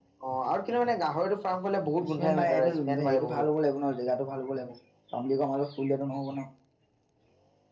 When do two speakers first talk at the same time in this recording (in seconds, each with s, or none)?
2.0 s